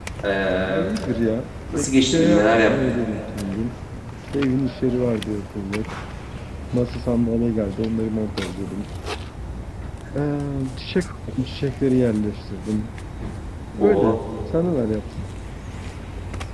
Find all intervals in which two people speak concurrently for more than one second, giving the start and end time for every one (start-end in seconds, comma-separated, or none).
1.8-3.0